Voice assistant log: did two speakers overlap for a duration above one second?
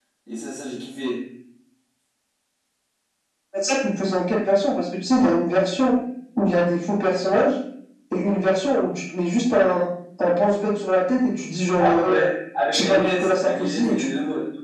Yes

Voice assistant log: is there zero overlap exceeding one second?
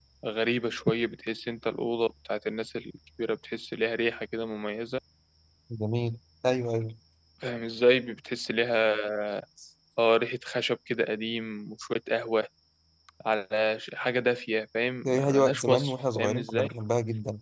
No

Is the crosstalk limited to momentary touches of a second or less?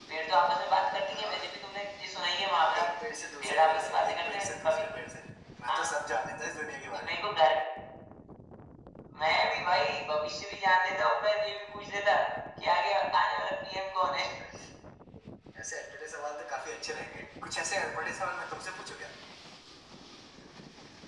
No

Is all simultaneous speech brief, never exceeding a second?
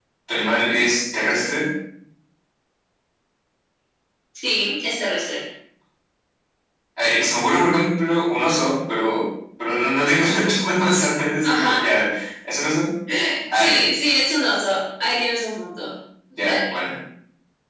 Yes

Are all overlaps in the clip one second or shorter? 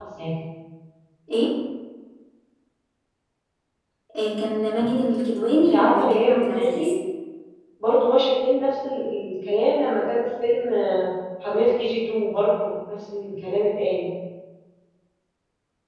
No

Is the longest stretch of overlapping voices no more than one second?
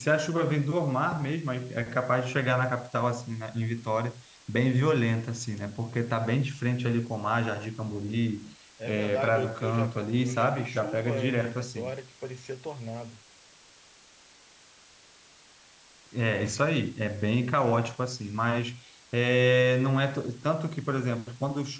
No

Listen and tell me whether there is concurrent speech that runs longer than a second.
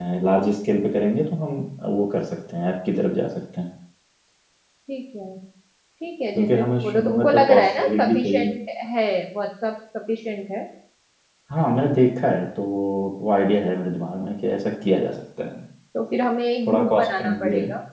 Yes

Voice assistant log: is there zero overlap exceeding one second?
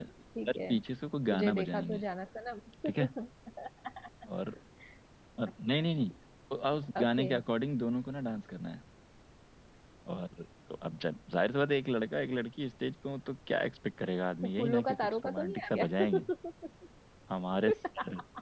No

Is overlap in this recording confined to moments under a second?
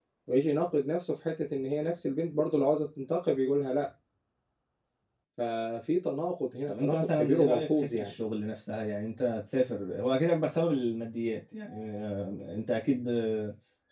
No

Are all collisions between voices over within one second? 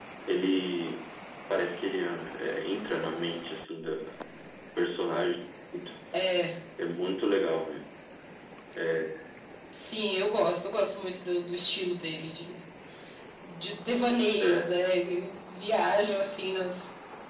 Yes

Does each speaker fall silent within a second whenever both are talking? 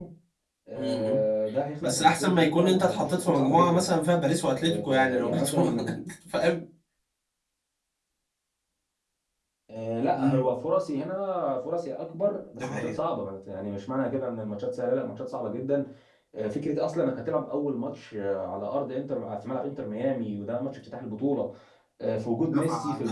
No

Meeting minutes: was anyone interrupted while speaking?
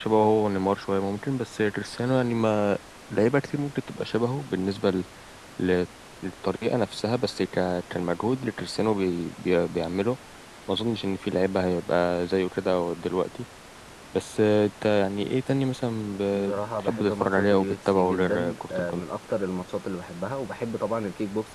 Yes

